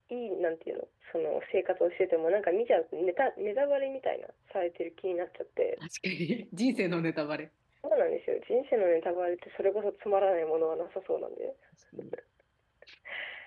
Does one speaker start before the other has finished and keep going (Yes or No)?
No